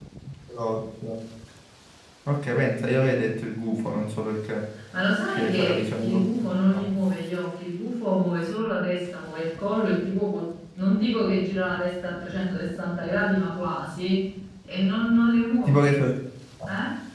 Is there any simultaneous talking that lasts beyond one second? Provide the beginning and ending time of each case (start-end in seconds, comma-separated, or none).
5.3-6.8